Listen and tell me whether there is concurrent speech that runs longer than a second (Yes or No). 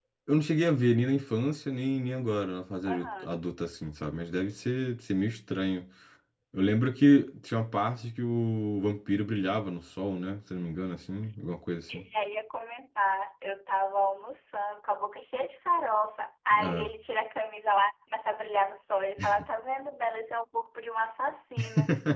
No